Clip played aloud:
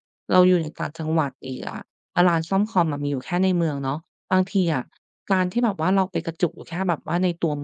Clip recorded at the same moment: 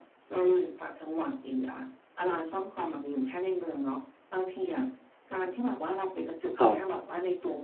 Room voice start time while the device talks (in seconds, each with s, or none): 6.6 s